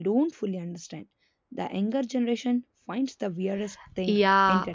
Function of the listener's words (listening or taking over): taking over